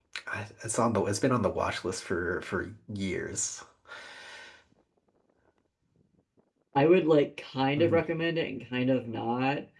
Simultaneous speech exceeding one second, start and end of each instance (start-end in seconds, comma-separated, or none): none